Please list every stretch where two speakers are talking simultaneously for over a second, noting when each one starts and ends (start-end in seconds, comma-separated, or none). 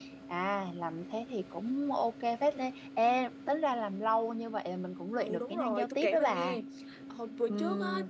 5.2-6.6